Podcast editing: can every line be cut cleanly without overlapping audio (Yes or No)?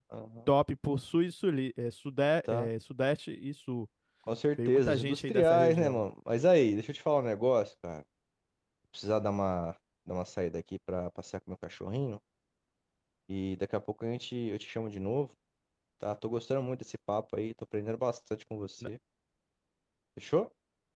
No